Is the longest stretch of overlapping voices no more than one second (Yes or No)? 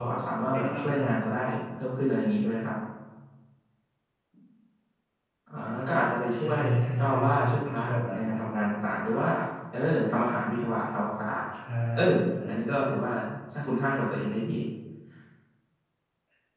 No